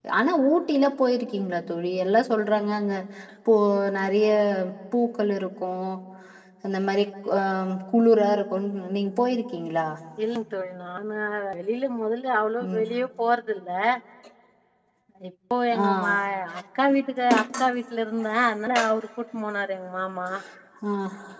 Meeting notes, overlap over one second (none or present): none